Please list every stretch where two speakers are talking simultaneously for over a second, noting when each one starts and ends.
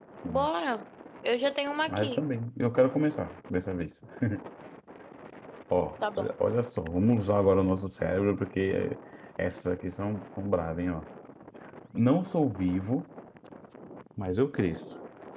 none

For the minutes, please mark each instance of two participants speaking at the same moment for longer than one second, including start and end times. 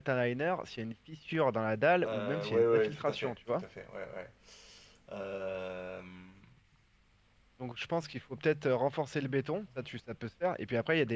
2.0-3.6

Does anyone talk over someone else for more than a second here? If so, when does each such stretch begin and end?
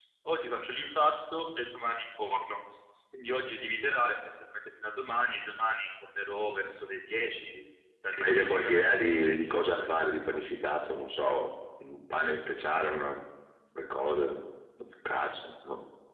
8.2-9.9

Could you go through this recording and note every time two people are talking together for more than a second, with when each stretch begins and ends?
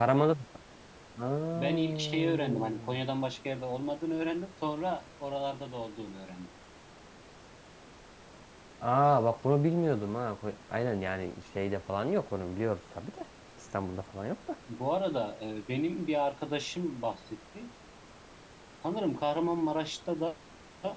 1.6-3.0

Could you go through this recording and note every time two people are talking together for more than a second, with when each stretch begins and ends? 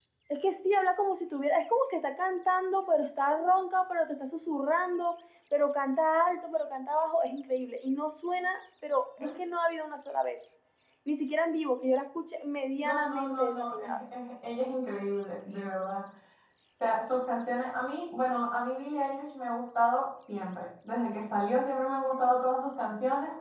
12.8-14.0

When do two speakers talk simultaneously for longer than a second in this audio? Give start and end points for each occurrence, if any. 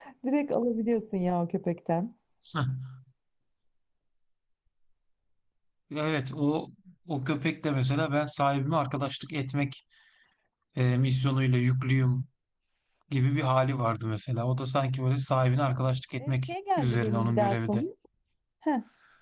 16.2-17.8

